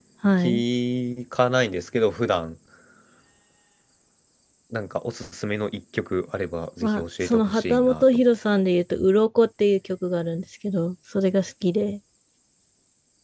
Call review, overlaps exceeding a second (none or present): present